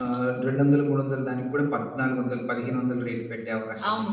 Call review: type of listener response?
taking over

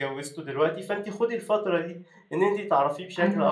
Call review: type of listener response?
listening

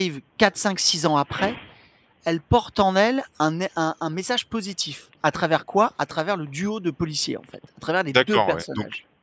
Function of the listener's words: taking over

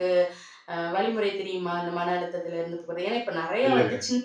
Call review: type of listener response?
listening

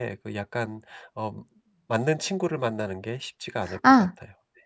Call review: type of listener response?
taking over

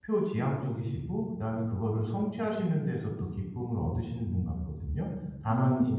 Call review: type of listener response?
listening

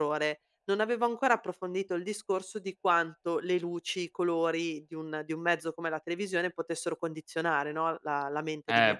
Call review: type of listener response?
taking over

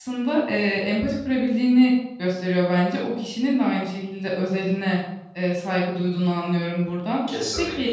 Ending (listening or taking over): listening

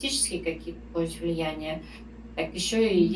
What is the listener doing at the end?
listening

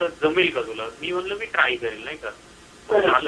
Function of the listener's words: listening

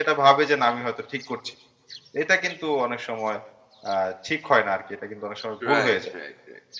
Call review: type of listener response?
taking over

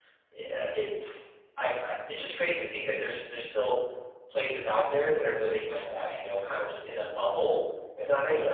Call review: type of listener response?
taking over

